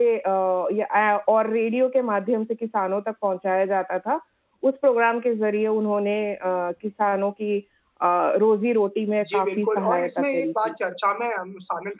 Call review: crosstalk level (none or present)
present